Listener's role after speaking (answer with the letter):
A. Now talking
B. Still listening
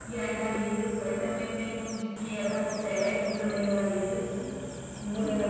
A